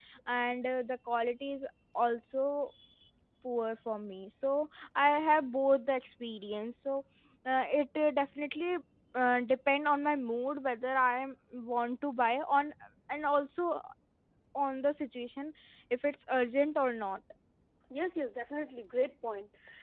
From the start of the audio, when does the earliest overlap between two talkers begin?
none

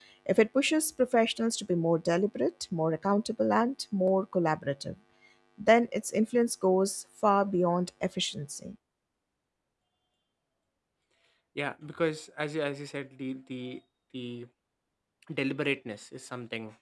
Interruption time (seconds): none

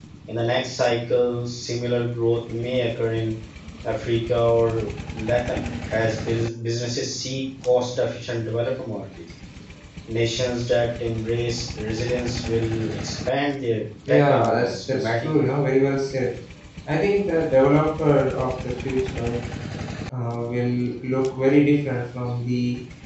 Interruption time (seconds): 14.1 s

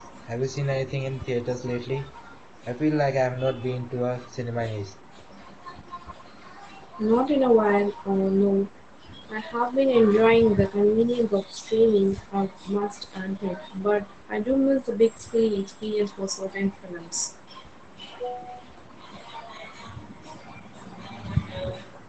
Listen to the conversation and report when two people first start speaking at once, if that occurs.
none

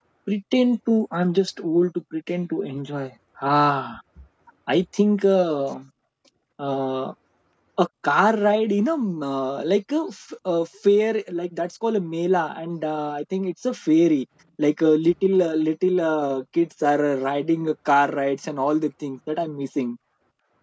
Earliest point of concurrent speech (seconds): none

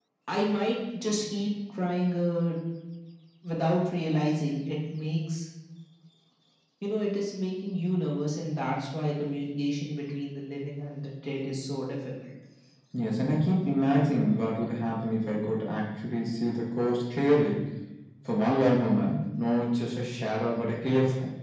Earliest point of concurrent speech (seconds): none

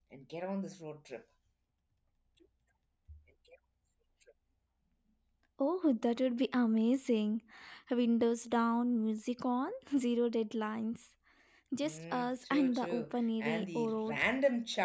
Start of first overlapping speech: 11.8 s

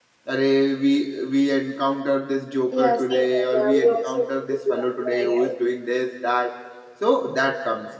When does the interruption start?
2.7 s

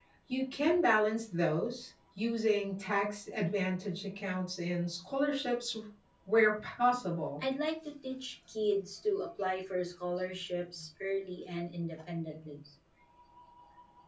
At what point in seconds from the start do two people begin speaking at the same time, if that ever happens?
none

